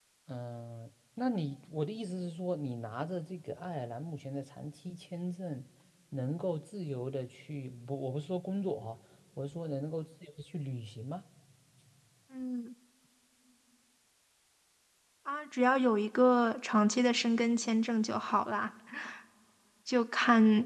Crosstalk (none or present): none